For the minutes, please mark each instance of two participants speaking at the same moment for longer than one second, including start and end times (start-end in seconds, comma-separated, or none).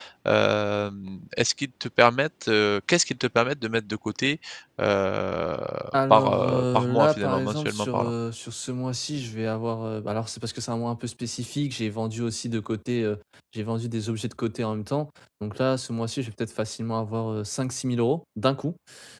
6.1-8.1